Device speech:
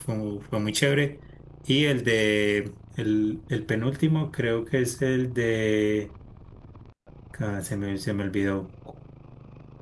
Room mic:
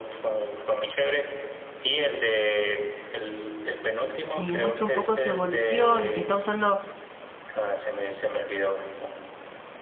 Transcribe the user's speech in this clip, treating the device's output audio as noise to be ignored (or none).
eh, muestra un poco su evolución y que está usando